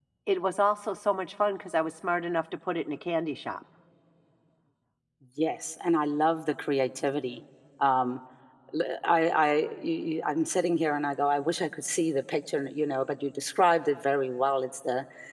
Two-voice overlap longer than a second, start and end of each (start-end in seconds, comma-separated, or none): none